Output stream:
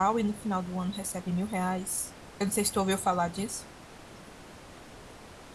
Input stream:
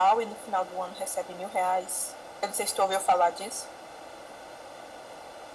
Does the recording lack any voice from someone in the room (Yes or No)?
Yes